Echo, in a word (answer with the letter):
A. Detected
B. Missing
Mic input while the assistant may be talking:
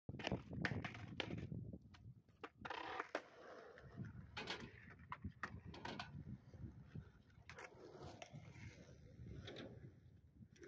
B